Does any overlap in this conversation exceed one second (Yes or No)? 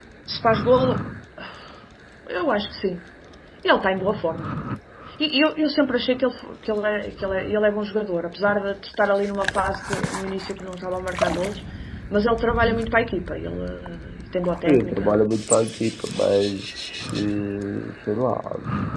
No